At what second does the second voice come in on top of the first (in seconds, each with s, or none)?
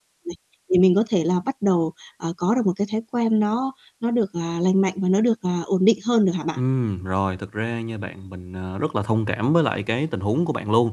none